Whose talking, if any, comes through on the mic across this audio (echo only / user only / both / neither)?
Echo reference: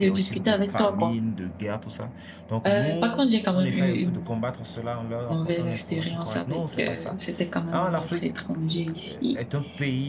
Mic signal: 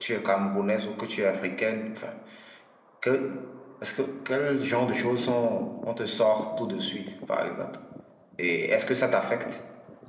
user only